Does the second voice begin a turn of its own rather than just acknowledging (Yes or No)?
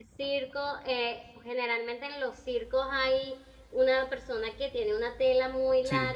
No